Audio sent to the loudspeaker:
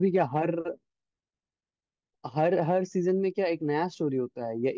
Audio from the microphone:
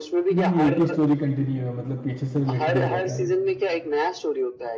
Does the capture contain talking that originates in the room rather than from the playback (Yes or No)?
Yes